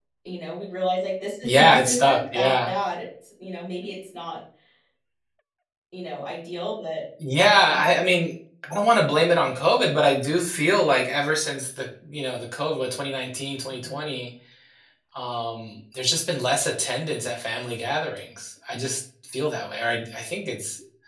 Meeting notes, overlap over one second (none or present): present